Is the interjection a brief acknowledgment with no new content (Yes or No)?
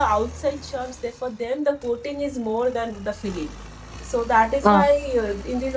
Yes